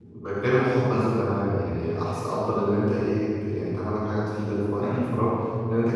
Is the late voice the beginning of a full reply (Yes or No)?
No